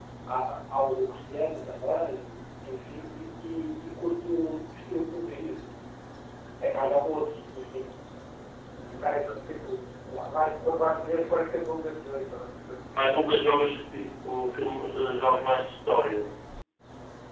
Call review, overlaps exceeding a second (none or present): none